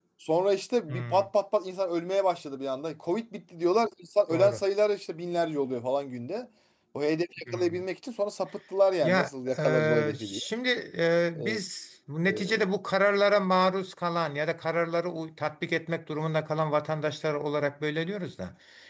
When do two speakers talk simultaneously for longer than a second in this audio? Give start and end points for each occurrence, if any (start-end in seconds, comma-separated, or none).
9.0-10.4